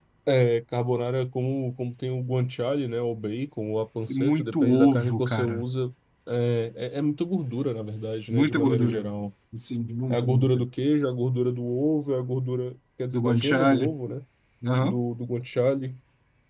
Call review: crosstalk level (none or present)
present